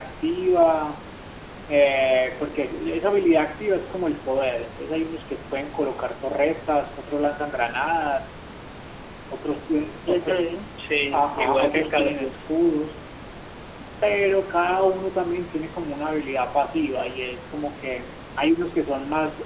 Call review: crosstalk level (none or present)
present